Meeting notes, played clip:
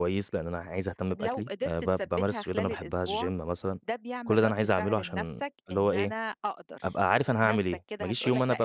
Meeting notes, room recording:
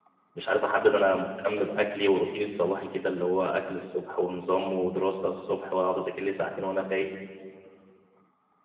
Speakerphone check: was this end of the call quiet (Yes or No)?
No